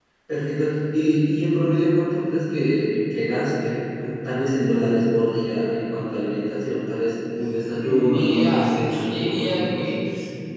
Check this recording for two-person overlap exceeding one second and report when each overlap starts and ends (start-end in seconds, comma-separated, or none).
7.7-9.9